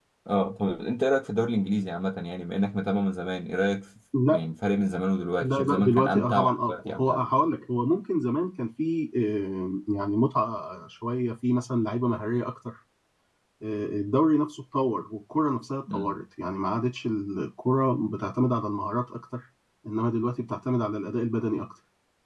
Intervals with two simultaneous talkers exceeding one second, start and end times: 5.4-7.2

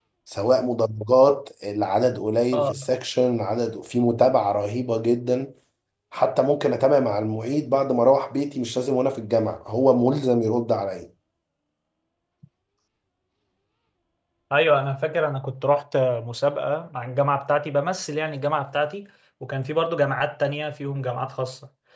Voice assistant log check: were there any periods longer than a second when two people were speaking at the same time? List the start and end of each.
none

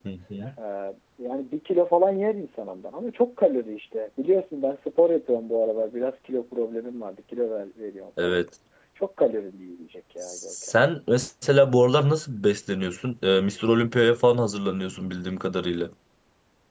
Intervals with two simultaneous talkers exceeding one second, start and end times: none

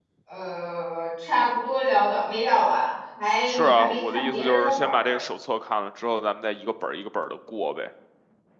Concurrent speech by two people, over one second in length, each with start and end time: 3.5-5.2

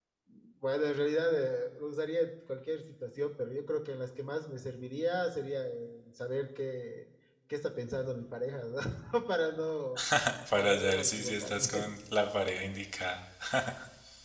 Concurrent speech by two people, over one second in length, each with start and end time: 10.6-11.9

